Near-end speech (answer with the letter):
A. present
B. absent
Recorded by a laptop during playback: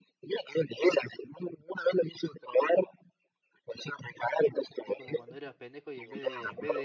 A